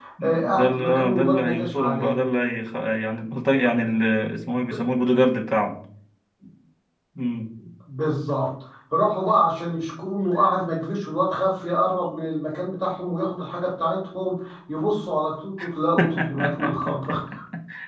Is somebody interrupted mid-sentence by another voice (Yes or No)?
Yes